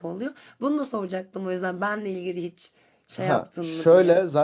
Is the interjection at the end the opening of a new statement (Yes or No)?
Yes